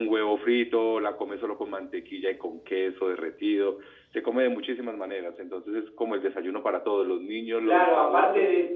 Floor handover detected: Yes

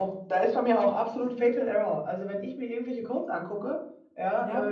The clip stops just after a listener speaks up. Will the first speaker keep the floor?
Yes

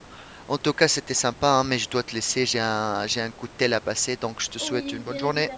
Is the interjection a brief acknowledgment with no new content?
No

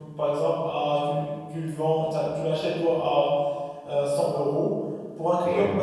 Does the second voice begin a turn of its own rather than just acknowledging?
No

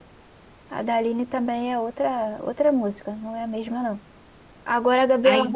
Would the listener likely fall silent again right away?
Yes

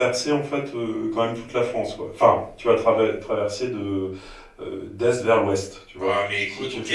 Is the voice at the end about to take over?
Yes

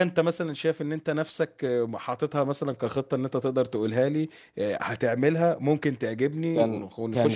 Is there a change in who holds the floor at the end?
Yes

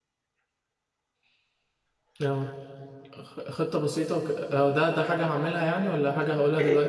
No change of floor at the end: No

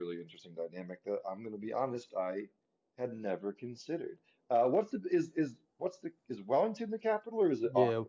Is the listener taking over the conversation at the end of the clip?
Yes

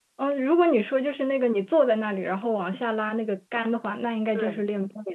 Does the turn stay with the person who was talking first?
Yes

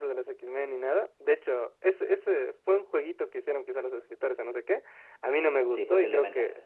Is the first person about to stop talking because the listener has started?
No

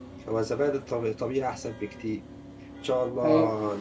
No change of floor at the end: Yes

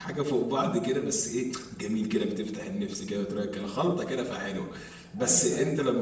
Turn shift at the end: No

